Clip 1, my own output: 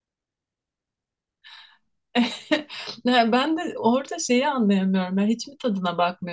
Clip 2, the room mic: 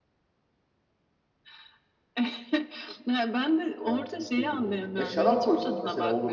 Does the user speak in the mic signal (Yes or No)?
Yes